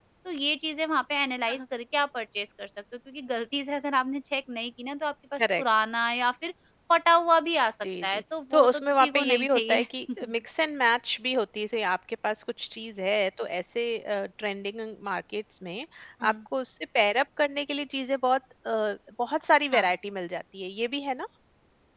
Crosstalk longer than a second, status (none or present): present